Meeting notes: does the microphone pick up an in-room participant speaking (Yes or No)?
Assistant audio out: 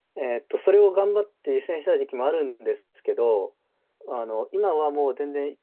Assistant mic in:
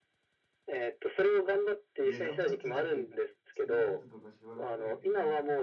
Yes